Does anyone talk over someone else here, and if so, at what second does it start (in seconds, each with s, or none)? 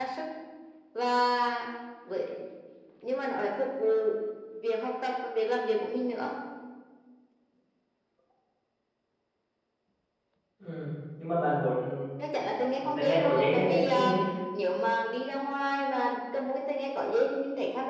12.8 s